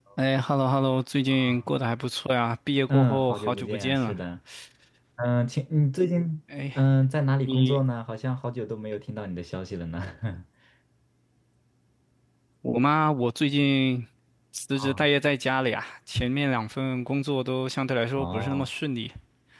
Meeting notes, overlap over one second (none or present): present